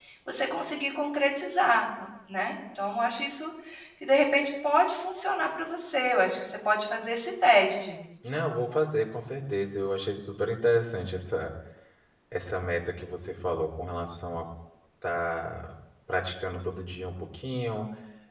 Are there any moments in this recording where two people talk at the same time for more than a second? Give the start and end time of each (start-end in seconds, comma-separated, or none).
none